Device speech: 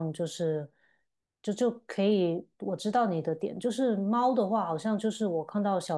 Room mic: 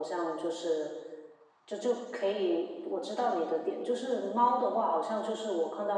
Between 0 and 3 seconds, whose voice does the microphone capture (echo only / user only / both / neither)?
echo only